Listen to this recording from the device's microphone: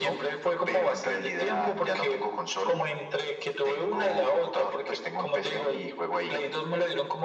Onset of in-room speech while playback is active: none

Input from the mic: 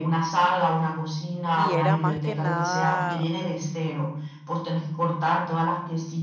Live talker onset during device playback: 1.5 s

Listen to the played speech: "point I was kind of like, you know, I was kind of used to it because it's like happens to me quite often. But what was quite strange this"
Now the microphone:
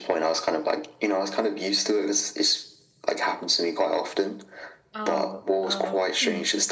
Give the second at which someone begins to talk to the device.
4.9 s

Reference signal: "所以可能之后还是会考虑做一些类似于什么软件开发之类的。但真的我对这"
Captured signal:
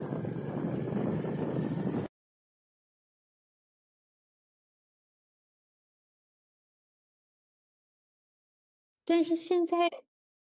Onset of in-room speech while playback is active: 9.1 s

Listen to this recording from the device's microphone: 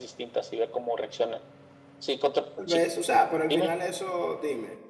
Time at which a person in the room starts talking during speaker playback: 2.5 s

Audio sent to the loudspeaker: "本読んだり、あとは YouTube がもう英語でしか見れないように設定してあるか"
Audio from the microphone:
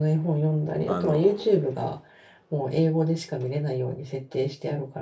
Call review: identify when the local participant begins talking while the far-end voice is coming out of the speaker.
0.8 s

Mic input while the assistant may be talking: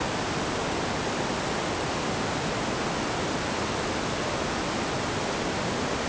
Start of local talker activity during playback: none

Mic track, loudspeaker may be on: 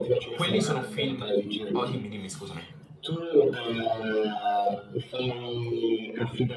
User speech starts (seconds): 0.3 s

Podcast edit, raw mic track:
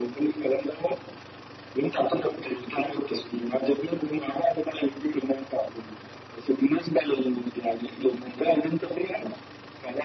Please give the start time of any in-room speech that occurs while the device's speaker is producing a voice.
none

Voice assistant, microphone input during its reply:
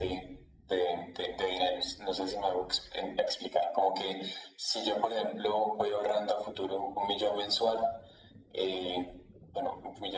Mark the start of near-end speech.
none

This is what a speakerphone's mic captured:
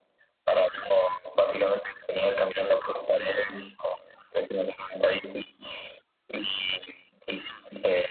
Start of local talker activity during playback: none

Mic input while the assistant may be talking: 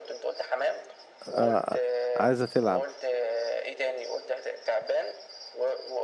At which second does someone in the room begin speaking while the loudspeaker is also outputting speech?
1.2 s

